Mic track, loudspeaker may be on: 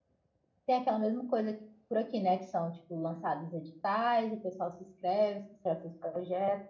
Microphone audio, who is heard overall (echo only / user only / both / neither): user only